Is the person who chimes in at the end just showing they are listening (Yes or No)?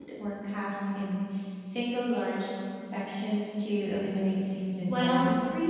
No